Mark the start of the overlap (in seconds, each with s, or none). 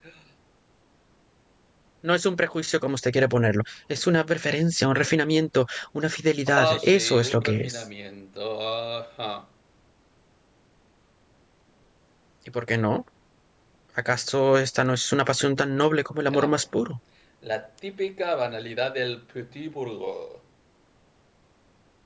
6.6 s